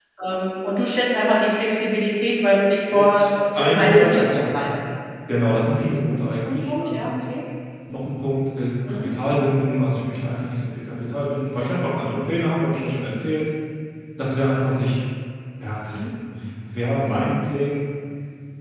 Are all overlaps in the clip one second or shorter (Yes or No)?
No